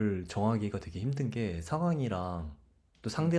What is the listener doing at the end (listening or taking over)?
listening